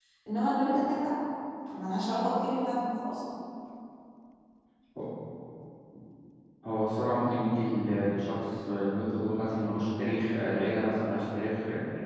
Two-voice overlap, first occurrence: none

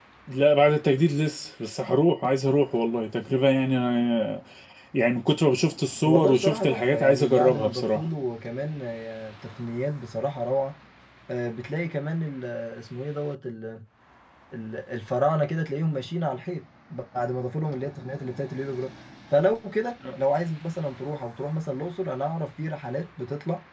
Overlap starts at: 6.0 s

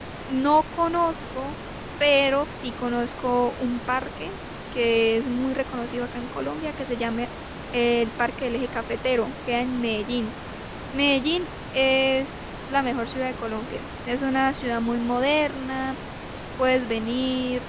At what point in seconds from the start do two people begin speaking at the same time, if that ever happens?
none

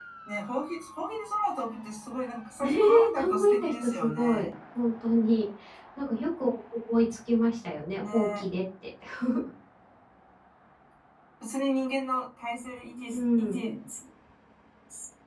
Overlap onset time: 2.6 s

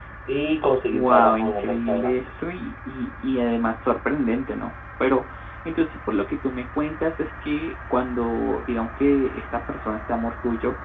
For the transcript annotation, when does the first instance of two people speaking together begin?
0.9 s

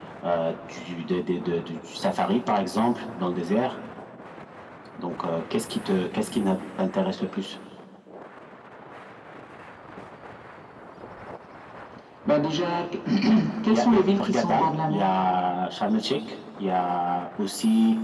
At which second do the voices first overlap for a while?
13.7 s

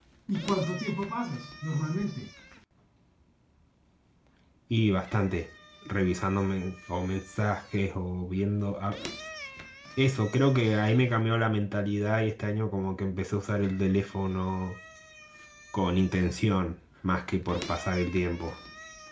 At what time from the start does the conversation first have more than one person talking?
none

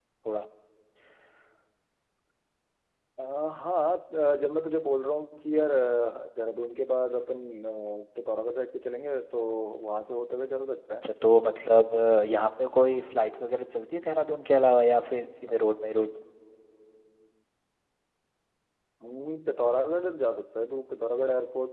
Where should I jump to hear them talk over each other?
none

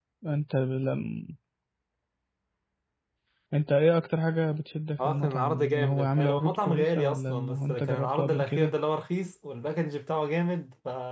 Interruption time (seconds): 5.0 s

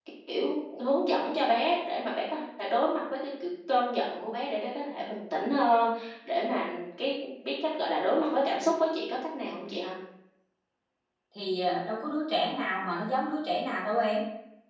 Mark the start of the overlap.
none

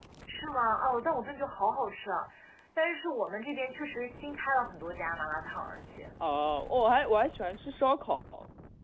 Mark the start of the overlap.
none

